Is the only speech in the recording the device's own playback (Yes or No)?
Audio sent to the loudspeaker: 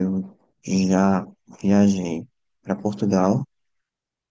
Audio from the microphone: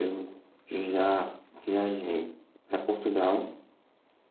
Yes